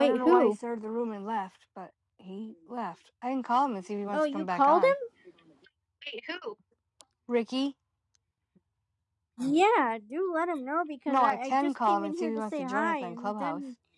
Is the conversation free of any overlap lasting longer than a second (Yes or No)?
No